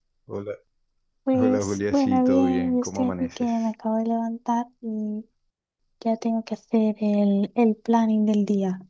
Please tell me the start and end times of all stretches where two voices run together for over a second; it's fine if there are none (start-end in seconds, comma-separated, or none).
1.3-3.7